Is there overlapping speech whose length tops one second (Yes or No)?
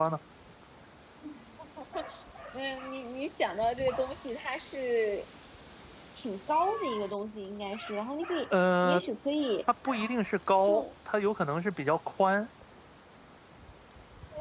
No